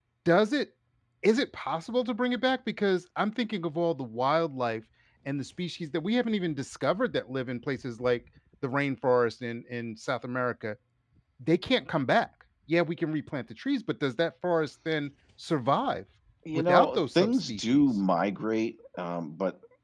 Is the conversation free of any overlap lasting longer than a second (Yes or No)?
No